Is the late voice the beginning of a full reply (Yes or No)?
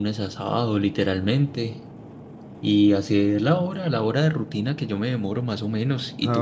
Yes